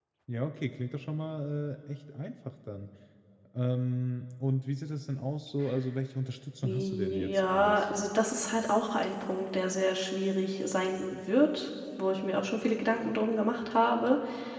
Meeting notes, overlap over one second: present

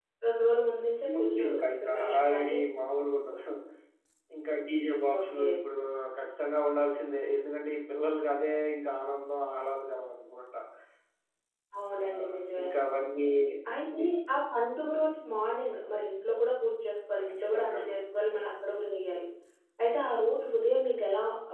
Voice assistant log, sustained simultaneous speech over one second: present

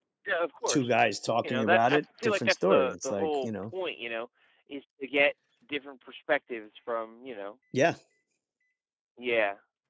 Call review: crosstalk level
present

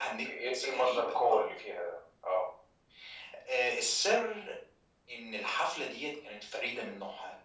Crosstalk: present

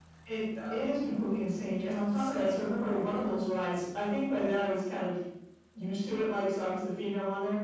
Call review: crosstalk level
present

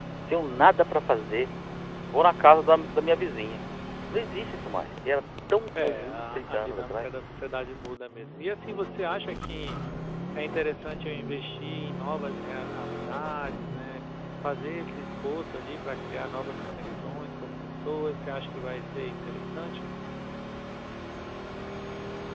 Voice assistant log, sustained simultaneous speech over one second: present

